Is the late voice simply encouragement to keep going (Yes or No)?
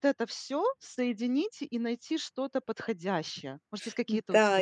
No